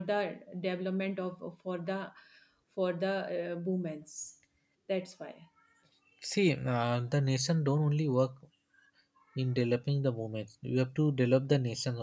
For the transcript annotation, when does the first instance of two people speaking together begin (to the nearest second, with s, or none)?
none